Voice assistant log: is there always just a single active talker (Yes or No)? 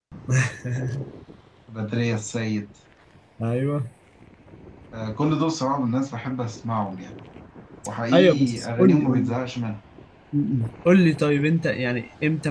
No